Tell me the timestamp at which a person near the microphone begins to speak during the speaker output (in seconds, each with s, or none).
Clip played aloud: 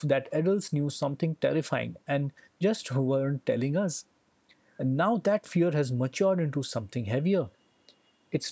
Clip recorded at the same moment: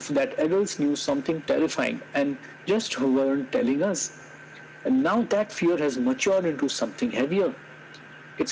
none